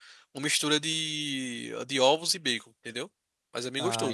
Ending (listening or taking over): taking over